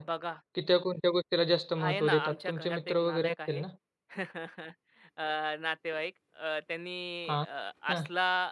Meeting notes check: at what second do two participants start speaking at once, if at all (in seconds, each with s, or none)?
1.8 s